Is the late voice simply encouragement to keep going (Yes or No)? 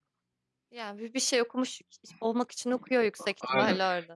No